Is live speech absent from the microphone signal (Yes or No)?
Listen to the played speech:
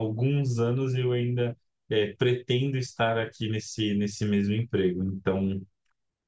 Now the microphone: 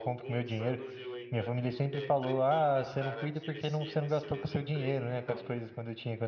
No